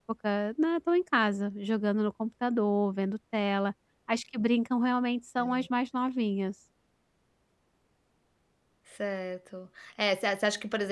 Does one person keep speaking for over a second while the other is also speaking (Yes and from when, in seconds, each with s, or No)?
No